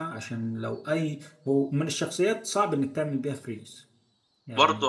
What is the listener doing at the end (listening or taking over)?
taking over